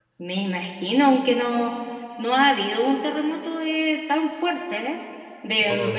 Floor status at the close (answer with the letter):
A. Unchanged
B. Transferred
A